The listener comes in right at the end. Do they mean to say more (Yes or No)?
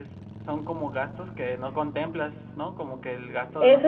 Yes